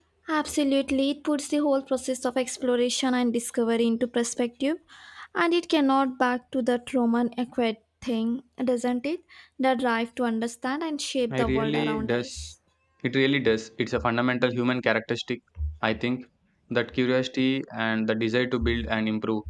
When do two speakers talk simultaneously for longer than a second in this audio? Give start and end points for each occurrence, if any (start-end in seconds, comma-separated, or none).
11.3-12.5